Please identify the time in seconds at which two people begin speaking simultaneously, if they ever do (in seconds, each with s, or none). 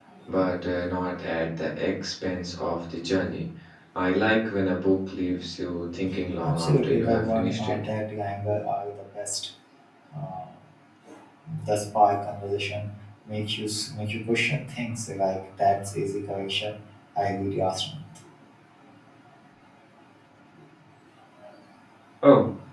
6.4 s